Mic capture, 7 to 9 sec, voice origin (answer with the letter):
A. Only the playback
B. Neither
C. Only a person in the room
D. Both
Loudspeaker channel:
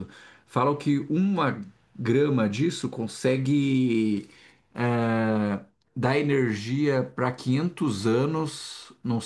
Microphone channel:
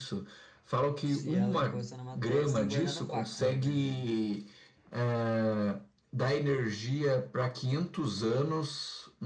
A